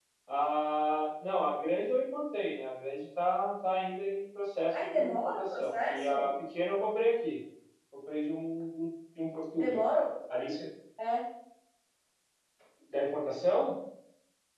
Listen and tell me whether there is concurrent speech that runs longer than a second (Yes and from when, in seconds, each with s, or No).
Yes, from 4.7 s